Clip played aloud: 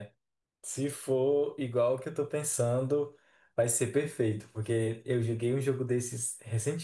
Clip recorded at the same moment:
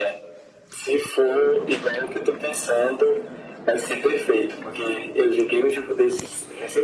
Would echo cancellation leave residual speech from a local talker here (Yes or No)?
No